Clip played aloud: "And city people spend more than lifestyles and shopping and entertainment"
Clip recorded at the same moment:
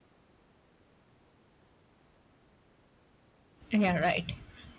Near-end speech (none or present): present